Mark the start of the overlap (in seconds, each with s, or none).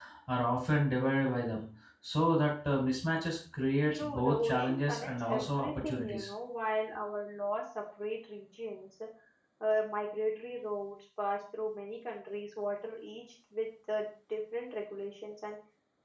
3.9 s